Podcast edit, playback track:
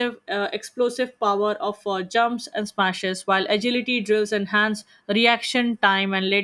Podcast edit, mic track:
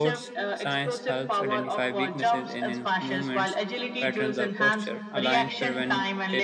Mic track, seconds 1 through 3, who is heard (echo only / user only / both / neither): both